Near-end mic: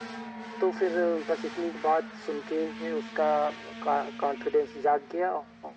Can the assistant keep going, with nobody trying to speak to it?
Yes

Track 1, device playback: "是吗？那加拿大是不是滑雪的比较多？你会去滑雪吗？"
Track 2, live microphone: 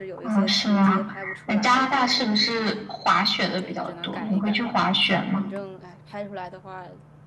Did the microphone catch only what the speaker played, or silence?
No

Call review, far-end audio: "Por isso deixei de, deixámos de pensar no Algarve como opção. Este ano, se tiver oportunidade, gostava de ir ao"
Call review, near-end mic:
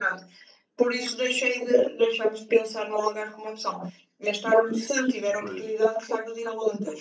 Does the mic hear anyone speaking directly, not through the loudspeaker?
Yes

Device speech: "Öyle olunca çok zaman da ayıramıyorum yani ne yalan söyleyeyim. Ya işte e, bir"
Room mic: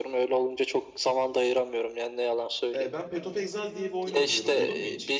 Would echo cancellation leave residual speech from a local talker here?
Yes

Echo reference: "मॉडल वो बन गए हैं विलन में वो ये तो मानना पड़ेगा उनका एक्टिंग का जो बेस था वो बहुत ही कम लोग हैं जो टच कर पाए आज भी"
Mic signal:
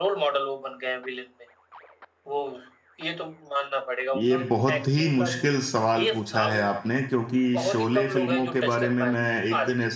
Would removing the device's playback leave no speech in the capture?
No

